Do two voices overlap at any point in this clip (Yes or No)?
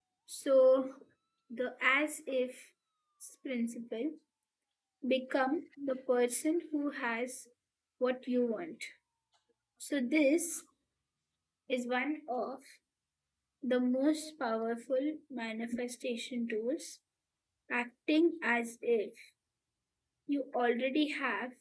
No